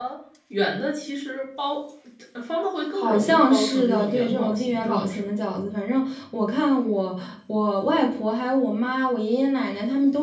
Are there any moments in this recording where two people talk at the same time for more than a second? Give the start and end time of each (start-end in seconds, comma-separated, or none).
2.9-5.3